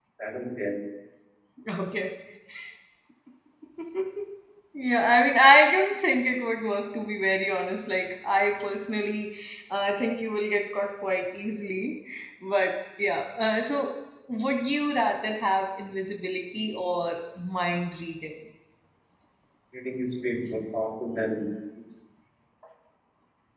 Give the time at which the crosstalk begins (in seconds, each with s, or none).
none